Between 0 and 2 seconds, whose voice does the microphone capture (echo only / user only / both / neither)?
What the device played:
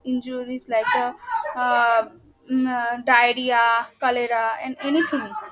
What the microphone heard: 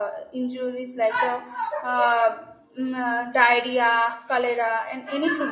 echo only